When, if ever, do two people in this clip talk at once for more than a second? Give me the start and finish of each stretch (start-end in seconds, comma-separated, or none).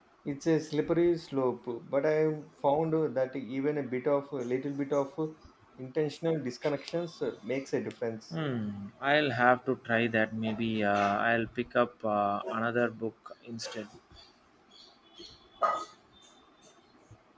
none